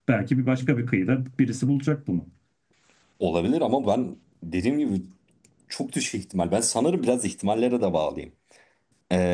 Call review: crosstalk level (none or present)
none